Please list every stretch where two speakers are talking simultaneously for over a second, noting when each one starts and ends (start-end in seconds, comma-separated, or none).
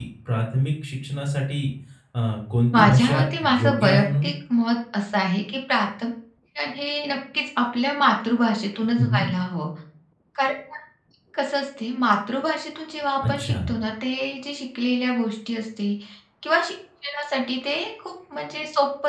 2.7-4.3